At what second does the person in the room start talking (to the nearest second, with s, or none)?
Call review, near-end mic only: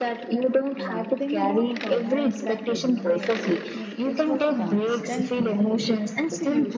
1 s